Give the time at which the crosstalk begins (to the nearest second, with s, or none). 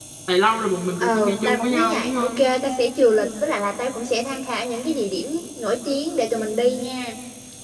1 s